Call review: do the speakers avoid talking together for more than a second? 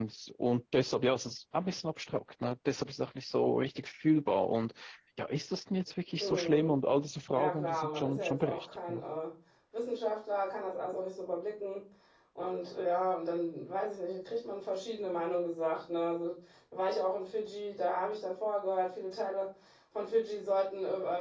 No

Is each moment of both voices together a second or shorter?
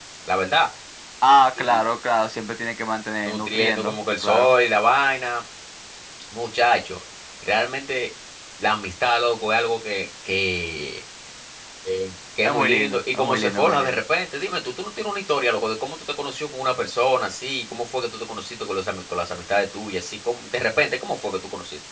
No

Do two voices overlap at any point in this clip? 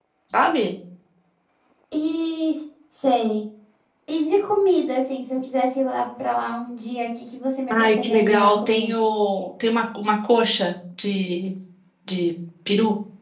Yes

